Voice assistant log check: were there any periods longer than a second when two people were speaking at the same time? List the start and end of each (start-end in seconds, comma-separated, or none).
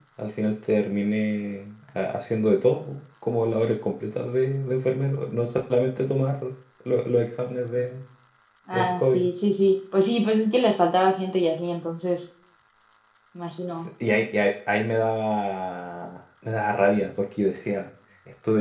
none